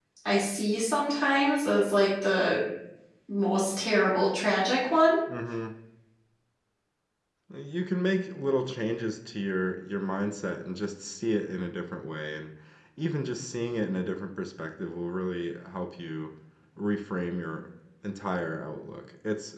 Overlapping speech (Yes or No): No